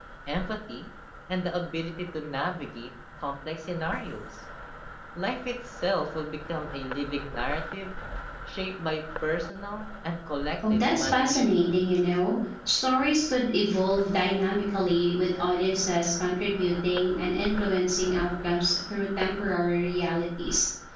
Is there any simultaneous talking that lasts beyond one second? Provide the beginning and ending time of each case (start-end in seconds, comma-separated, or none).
10.7-12.0